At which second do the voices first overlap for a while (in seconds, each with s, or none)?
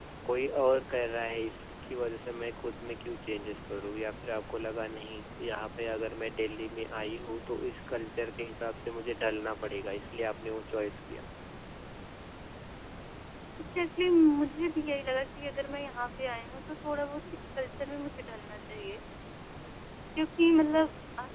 none